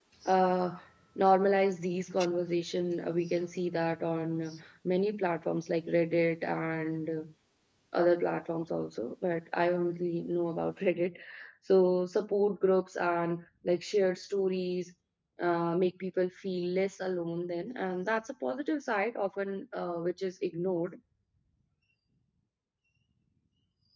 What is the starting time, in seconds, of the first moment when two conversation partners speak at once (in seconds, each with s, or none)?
none